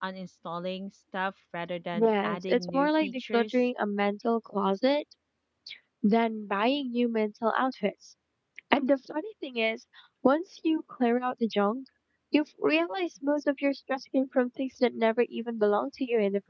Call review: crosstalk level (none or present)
present